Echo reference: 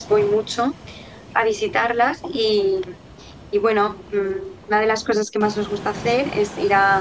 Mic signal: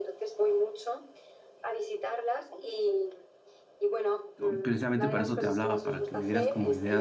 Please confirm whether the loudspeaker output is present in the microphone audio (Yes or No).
Yes